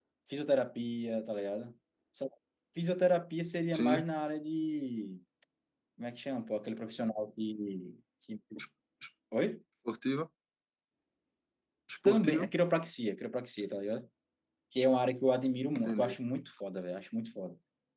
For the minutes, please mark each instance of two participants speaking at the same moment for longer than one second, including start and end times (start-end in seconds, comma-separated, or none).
none